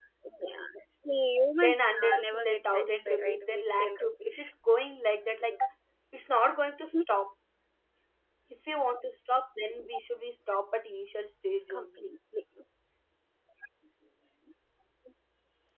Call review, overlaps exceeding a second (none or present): present